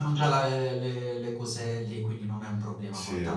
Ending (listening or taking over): listening